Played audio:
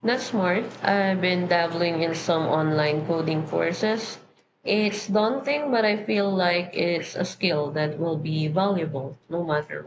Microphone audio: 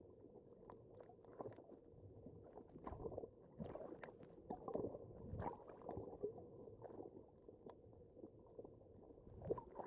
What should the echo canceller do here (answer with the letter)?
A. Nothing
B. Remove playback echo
A